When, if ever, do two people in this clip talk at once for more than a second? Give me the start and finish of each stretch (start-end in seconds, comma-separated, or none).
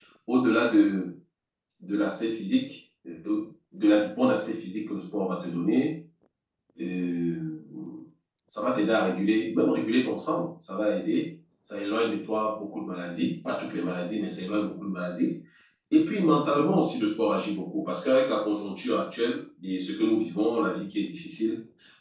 none